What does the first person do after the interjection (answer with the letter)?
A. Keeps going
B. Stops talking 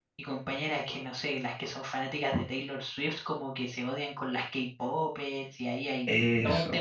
A